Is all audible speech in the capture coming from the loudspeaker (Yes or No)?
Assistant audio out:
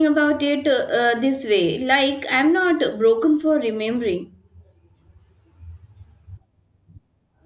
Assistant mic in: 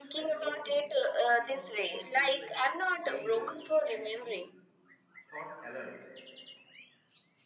No